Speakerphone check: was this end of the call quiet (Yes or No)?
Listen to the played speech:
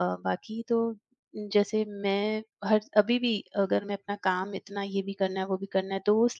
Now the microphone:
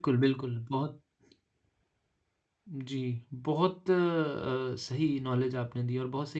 No